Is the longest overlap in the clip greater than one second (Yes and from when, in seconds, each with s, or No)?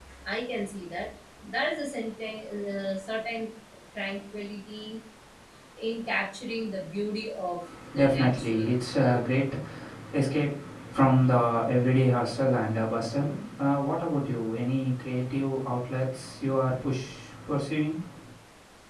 Yes, from 8.0 s